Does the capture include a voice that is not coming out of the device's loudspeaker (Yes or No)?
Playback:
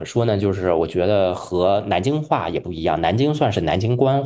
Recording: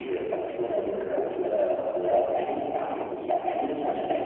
No